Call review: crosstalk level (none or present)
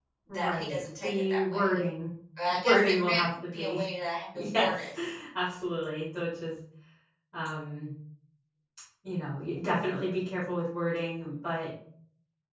present